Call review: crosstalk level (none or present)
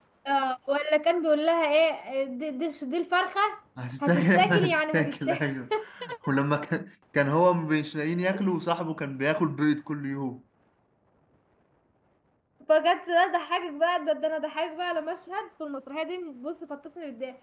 present